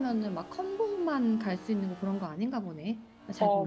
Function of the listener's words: taking over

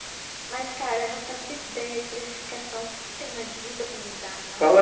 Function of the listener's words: taking over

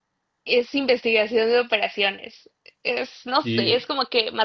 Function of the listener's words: listening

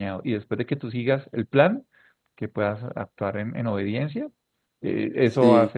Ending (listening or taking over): listening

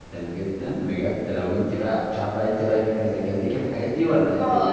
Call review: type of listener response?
taking over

